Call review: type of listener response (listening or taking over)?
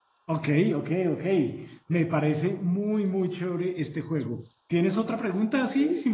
taking over